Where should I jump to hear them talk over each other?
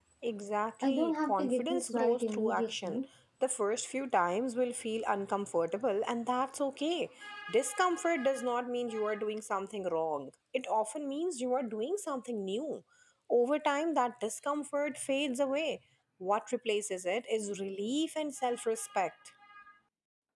1 s

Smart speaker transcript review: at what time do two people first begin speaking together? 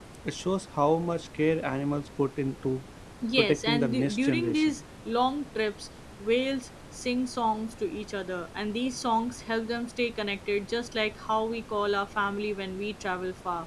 3 s

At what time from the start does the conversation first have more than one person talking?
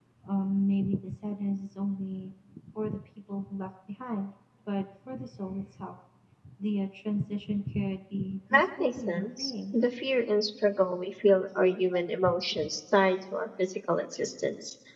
9 s

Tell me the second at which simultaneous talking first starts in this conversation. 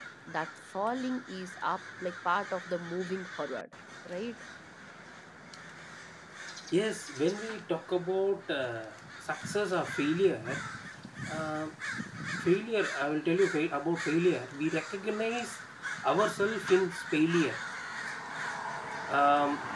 none

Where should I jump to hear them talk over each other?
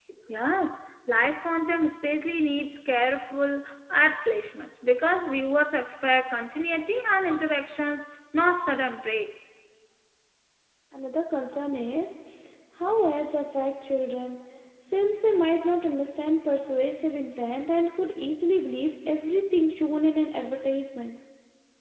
none

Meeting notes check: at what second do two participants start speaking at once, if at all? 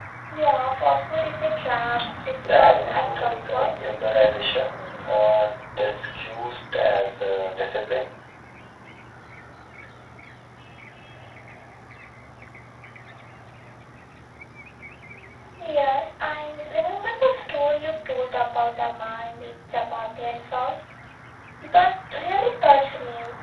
3 s

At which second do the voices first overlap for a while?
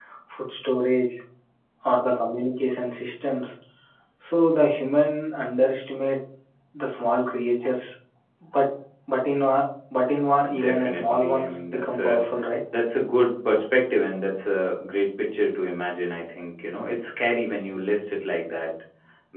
10 s

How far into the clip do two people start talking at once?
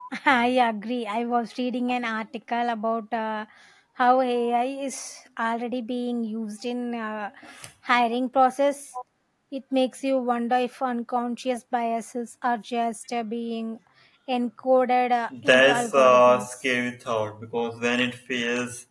15 s

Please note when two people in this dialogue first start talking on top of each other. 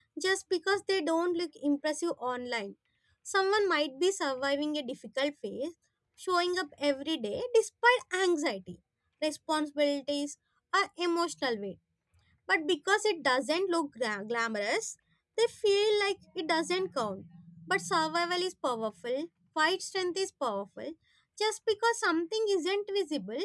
none

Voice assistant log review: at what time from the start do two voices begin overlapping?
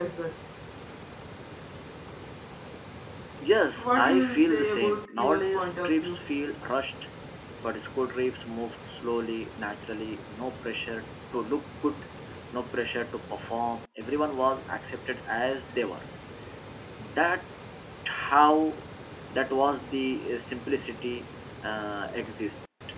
4 s

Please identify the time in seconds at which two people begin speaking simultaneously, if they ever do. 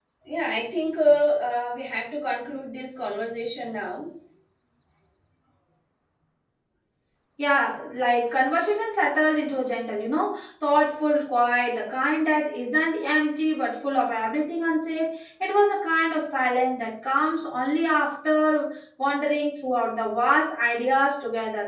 none

